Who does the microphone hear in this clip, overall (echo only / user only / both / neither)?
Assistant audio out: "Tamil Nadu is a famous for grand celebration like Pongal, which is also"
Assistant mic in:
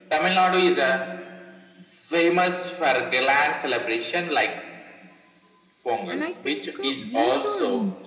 both